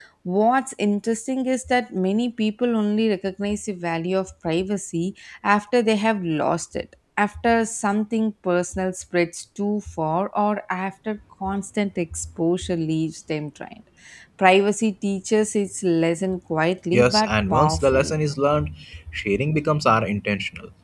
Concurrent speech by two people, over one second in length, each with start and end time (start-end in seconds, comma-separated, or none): 16.9-18.1